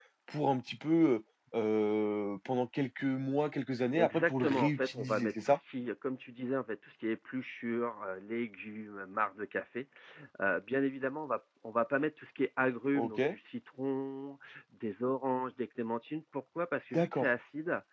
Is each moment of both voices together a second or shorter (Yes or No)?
No